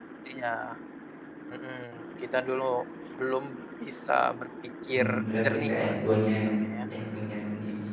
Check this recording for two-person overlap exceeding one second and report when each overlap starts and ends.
5.0-6.3

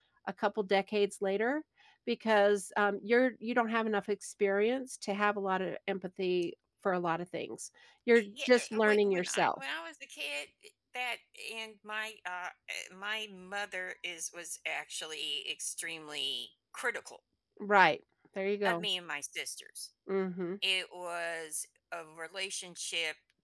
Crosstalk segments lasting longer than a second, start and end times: 8.2-9.6

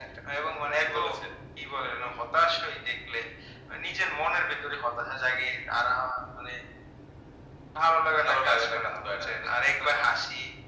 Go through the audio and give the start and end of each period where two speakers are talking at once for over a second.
8.2-9.4

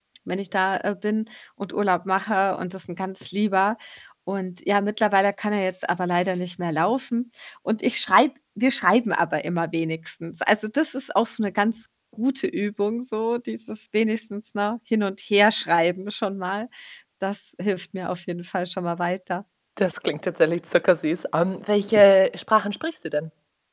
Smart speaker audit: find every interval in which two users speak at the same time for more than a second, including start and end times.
none

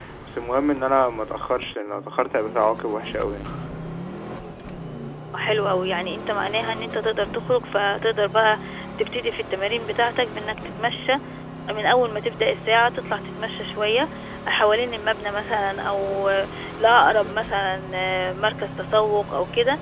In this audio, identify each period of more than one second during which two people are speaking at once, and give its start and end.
none

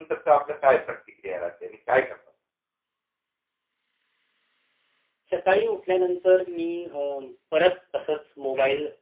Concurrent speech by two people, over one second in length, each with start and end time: none

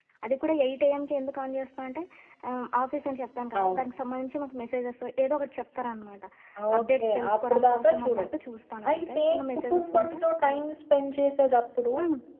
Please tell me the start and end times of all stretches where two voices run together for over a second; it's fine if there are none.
6.8-8.3, 8.9-10.6

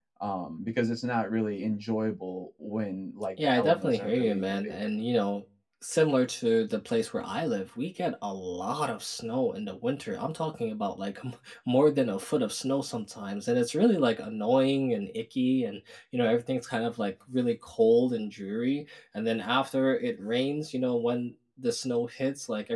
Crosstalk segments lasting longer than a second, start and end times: 3.4-4.8

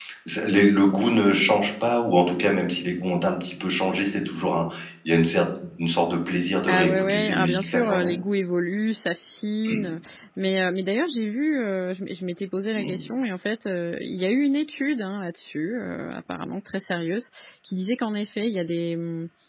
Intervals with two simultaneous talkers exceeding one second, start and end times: 6.7-8.1

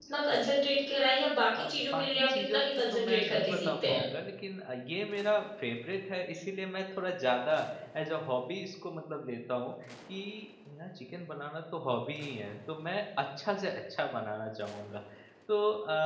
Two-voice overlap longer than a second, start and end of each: 1.6-4.0

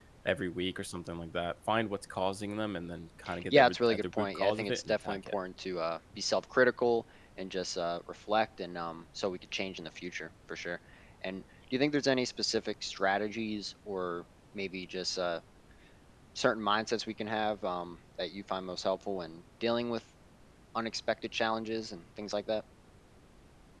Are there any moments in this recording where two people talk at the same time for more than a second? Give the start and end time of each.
3.5-5.3

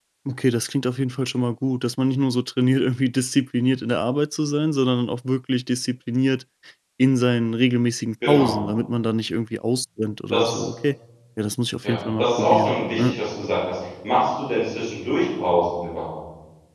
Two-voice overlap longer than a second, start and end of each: 11.8-13.2

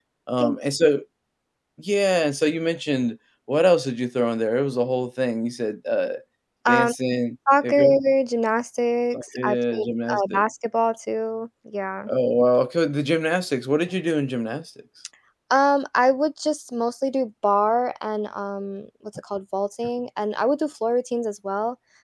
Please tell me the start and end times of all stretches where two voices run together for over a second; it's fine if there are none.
9.1-10.4

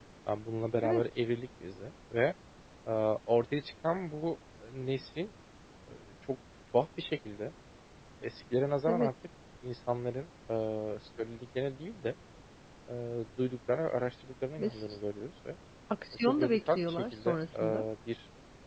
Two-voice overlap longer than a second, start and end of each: 16.2-17.9

